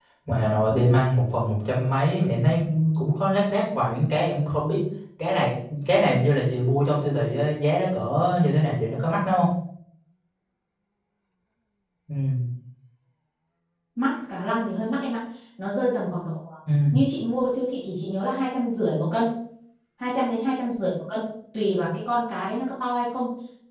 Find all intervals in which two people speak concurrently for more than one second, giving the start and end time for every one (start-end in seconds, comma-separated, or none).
none